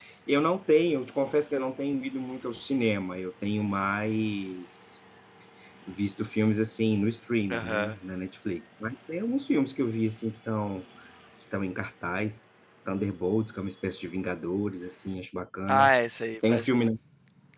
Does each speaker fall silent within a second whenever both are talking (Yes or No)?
Yes